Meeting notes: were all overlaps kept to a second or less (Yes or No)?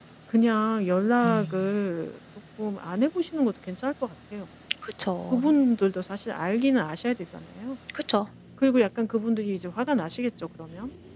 Yes